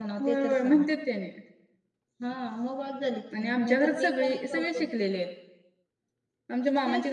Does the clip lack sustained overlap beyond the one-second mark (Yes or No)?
No